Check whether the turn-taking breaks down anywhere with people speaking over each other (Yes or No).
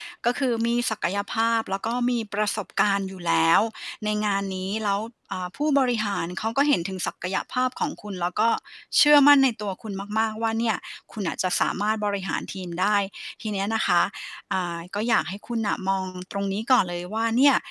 No